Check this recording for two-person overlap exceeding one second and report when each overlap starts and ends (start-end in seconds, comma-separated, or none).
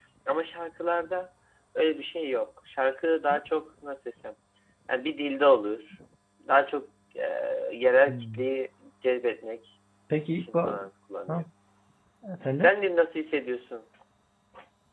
none